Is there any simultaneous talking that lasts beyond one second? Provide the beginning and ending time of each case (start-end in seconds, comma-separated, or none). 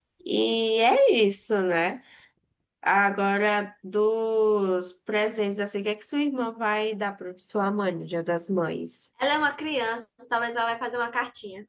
none